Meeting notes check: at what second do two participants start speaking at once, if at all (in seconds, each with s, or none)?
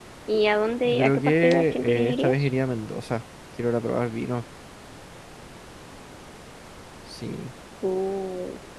0.8 s